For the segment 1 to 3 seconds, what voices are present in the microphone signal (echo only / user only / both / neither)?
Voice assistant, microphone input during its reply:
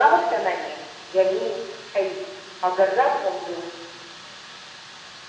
echo only